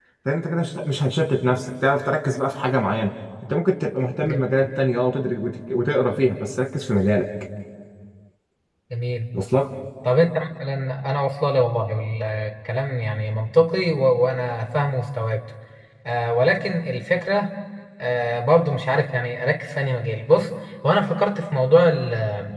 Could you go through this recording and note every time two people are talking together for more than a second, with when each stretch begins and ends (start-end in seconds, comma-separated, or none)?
none